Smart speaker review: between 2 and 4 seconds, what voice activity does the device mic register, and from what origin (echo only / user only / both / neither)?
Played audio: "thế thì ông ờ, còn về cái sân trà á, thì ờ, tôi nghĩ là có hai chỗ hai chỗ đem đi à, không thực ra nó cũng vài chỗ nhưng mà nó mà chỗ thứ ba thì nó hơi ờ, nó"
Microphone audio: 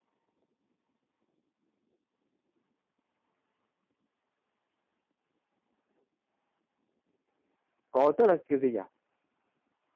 neither